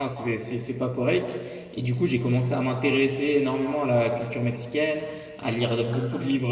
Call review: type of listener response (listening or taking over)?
listening